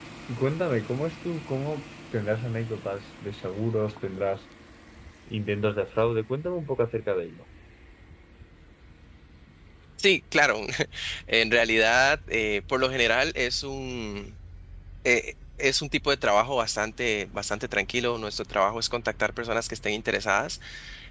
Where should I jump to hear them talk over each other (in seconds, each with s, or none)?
none